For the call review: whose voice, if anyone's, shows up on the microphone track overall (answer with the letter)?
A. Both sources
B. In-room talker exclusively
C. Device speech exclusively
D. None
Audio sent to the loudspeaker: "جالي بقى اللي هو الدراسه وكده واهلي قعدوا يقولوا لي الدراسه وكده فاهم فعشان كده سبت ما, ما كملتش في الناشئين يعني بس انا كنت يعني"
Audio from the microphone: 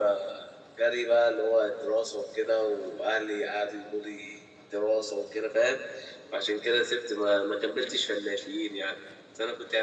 C